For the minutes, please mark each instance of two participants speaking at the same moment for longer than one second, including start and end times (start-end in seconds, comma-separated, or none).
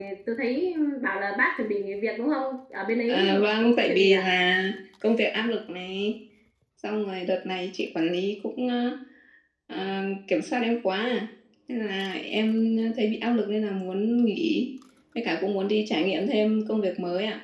3.1-4.3